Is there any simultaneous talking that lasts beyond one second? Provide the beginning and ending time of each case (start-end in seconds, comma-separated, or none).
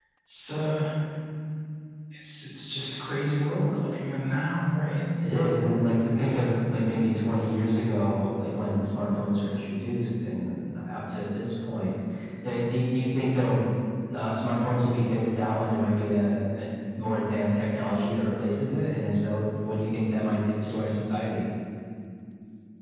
none